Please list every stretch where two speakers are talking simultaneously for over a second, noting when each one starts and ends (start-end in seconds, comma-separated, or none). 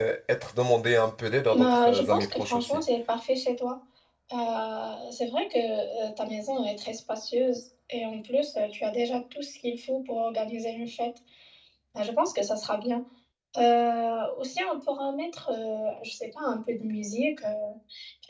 1.5-2.8